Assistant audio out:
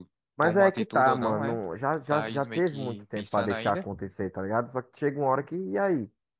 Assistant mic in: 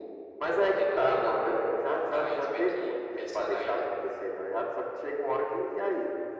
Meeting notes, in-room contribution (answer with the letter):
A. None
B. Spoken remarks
A